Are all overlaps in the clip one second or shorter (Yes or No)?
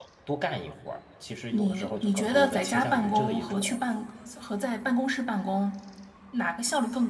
No